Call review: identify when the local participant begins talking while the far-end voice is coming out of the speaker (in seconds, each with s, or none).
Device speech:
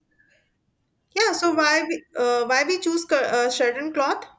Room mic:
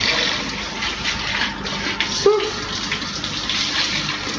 2.1 s